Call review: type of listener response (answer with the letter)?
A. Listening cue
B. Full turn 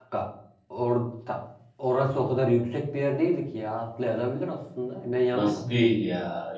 B